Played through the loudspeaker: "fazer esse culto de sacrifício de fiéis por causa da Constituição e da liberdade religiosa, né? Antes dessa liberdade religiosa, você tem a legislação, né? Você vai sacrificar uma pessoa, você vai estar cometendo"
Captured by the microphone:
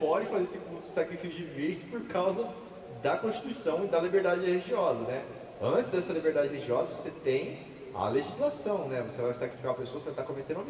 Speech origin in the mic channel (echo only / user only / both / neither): echo only